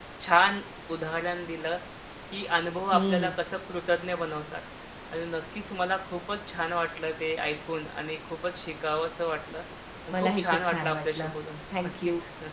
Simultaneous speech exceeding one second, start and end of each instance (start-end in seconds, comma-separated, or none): 10.1-11.3